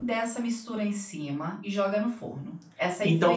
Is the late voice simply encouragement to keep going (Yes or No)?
No